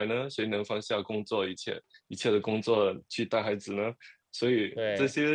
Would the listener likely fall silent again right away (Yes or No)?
Yes